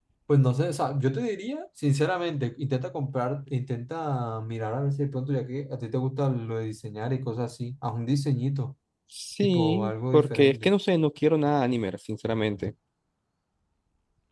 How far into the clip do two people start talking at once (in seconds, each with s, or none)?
9.4 s